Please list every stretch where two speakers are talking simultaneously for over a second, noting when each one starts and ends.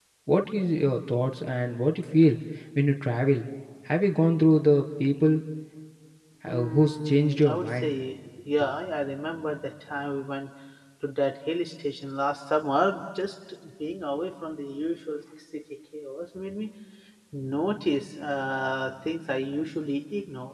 6.5-7.9

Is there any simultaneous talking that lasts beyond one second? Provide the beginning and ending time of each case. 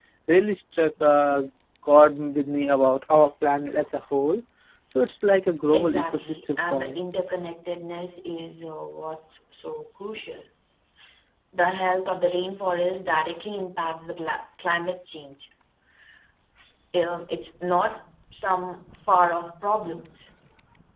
5.7-7.0

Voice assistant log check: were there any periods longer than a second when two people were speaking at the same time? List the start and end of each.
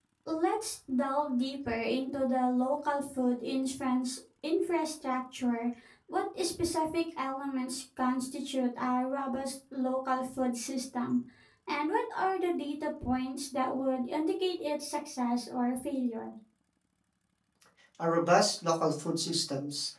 none

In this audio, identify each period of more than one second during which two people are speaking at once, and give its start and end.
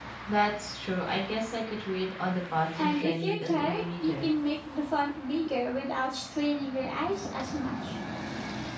2.8-4.3

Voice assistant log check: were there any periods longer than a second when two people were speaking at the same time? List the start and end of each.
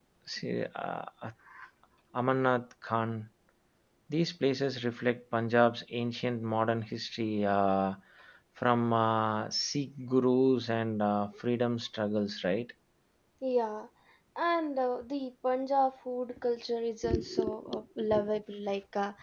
none

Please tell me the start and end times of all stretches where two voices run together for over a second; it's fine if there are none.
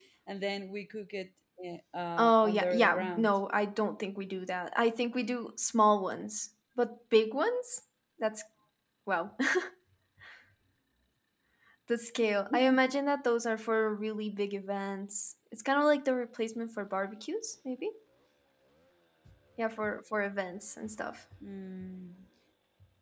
2.2-3.4

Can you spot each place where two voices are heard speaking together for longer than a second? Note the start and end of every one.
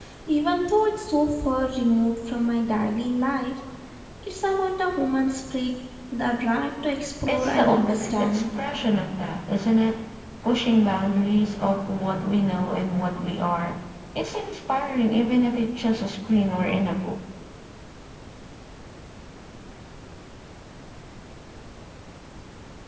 7.3-8.5

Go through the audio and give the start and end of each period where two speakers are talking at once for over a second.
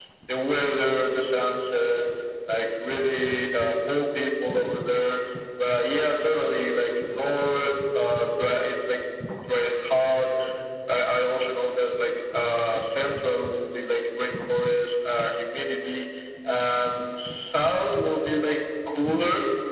none

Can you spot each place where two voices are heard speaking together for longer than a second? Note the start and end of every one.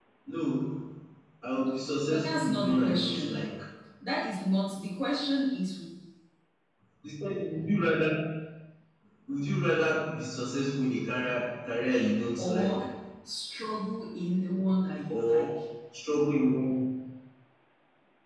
2.1-3.3

